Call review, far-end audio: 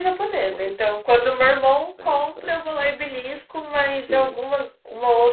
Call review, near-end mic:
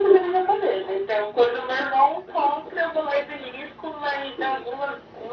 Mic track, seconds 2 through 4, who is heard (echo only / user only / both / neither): echo only